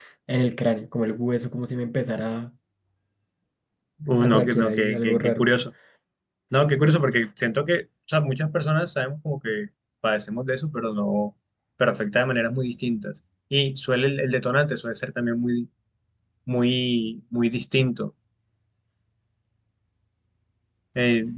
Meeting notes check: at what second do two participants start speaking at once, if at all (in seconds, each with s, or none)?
4.2 s